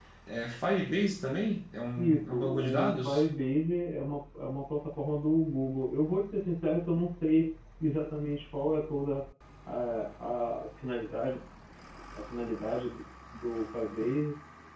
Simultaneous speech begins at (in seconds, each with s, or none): 2.0 s